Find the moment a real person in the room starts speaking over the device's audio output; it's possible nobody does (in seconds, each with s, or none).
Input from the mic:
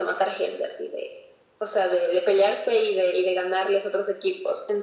none